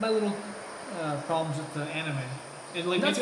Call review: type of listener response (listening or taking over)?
listening